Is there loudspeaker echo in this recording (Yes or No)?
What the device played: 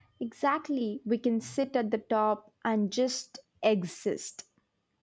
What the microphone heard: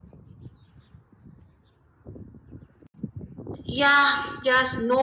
No